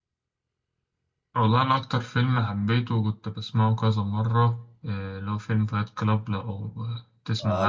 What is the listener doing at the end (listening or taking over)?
taking over